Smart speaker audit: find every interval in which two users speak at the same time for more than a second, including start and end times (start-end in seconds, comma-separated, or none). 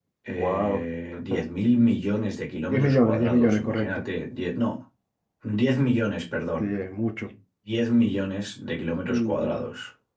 2.7-4.0